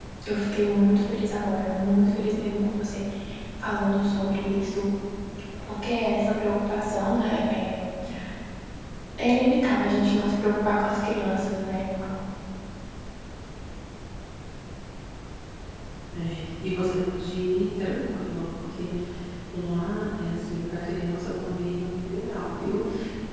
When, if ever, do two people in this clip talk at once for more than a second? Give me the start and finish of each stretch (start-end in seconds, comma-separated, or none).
none